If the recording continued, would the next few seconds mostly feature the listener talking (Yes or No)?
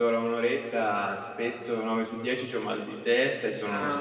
Yes